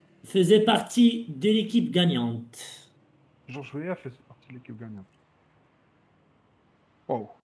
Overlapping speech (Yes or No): No